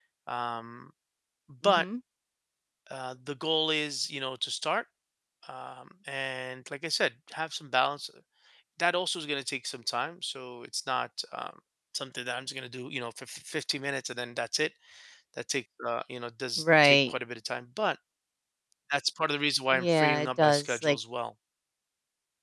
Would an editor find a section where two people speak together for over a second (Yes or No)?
Yes